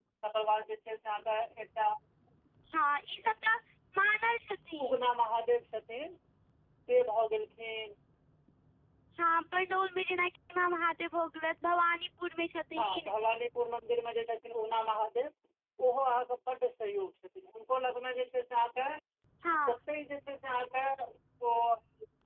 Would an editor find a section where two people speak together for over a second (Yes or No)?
No